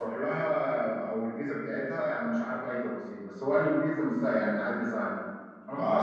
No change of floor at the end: No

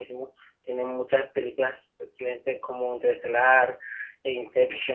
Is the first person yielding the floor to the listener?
No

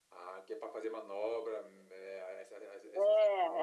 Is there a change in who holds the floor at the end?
Yes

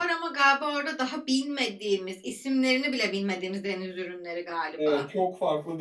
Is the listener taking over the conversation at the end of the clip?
Yes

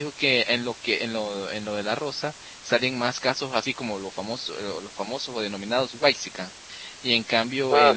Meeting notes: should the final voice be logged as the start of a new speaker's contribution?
No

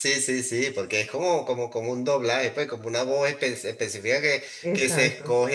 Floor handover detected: No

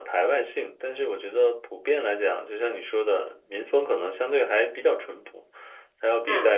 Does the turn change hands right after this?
No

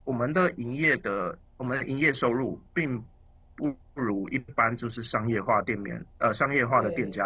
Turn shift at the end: No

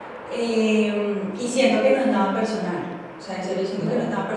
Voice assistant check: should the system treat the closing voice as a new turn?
No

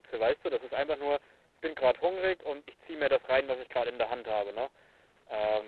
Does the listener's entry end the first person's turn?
No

